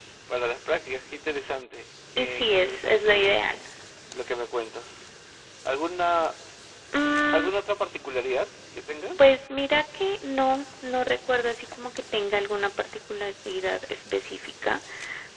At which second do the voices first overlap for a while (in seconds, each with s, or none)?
2.2 s